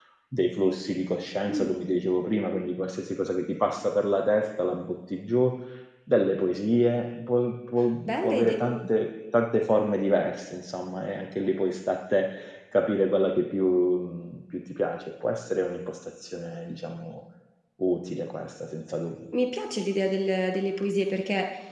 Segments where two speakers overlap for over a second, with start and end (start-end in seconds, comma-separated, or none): none